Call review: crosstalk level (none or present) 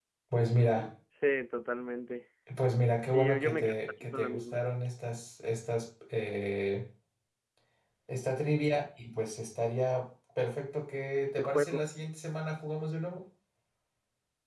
present